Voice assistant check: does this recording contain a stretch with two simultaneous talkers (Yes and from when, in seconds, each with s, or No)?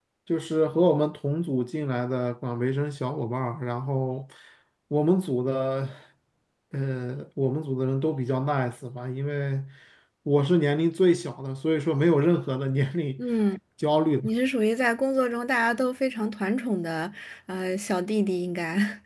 No